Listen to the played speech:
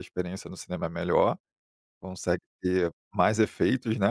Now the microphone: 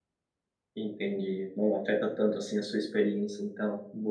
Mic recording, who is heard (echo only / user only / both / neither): user only